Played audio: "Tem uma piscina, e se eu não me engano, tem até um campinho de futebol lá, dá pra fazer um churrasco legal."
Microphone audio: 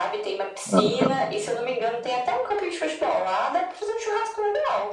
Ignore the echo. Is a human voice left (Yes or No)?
Yes